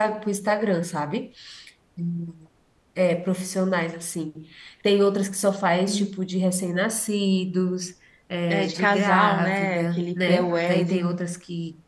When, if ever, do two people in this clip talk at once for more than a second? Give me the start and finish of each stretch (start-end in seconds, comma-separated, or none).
8.5-11.2